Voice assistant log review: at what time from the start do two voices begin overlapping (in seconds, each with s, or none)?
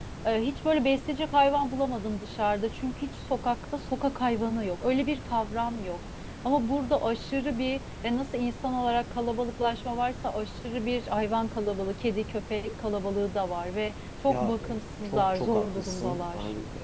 14.3 s